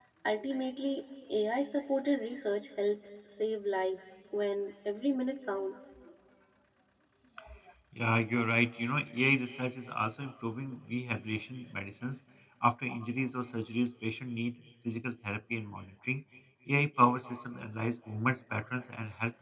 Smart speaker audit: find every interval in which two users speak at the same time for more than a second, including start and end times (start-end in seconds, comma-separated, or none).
none